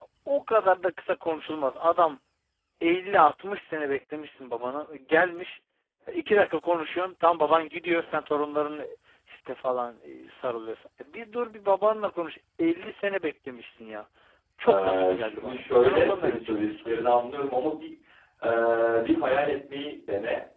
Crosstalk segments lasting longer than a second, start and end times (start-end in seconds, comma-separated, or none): 14.7-16.9